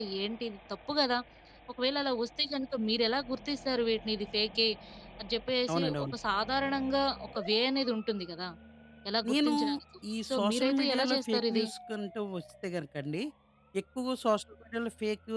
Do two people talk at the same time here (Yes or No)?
Yes